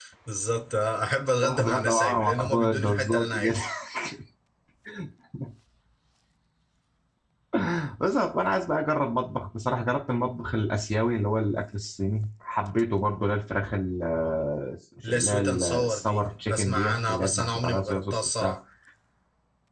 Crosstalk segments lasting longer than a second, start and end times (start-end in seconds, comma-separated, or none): 1.4-3.6, 15.1-18.5